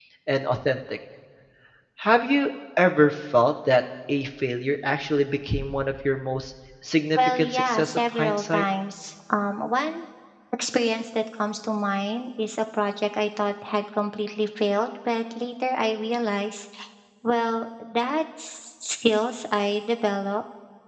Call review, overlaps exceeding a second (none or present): present